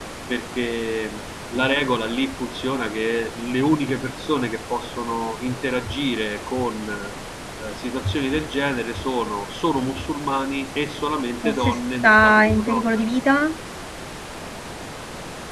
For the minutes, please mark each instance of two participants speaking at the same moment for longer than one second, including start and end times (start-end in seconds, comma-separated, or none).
11.5-13.0